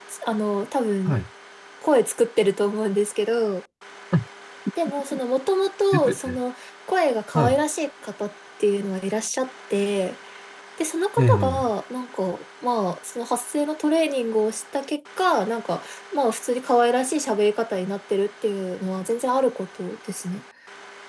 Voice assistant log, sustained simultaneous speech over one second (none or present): none